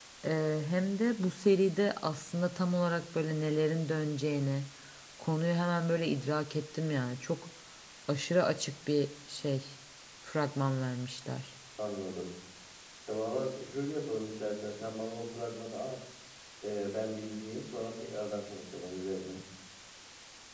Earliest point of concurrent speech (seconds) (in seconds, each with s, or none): none